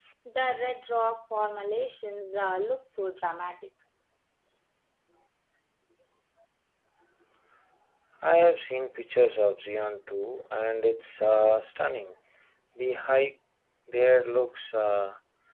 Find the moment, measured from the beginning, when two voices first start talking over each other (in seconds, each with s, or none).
none